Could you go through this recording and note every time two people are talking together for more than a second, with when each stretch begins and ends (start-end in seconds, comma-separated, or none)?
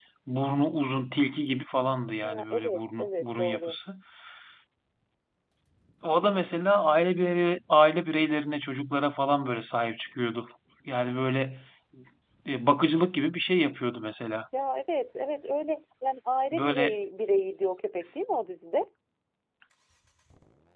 2.2-3.8